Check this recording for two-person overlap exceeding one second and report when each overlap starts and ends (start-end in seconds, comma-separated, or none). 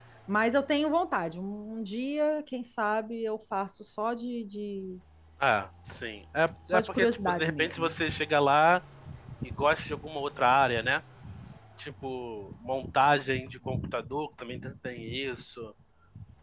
6.7-8.0